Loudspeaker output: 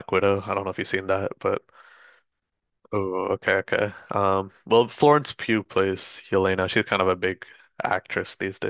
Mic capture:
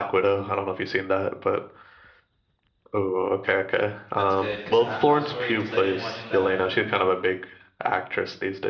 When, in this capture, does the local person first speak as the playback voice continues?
4.2 s

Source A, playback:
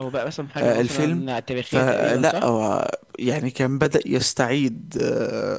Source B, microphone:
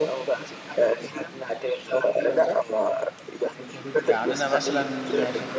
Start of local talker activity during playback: 4.0 s

